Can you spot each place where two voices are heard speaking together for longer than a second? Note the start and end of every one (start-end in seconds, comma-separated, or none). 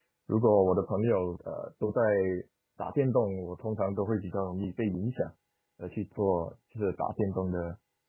none